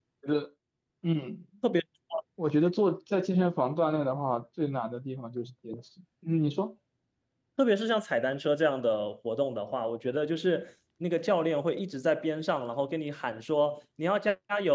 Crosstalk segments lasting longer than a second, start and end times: none

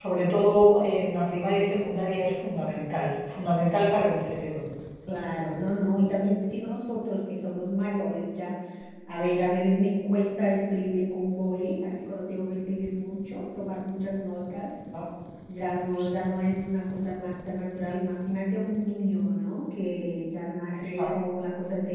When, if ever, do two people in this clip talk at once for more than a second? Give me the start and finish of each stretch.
none

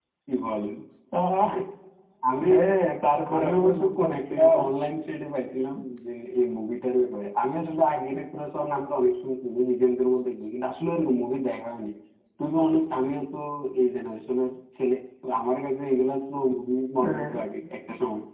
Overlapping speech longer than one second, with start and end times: 3.4-4.6

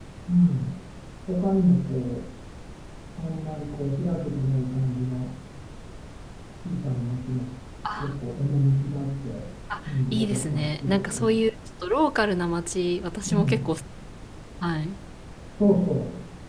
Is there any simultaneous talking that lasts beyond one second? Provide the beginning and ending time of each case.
10.1-11.4

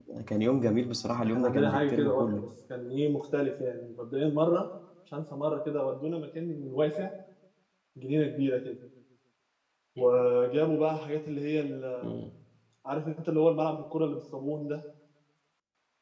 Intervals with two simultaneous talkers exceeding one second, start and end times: 1.2-2.4

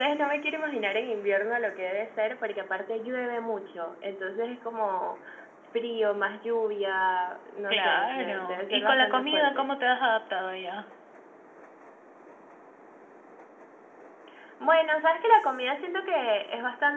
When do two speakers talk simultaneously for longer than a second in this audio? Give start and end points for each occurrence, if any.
7.7-9.7

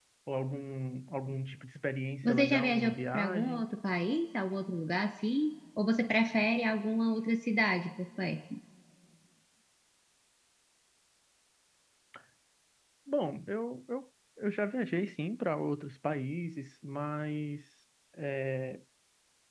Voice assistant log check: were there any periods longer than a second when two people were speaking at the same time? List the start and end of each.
2.2-3.6

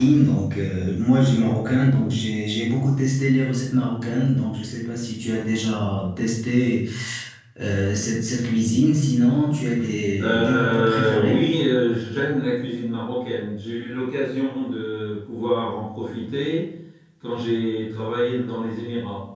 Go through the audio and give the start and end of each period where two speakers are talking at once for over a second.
10.2-11.4

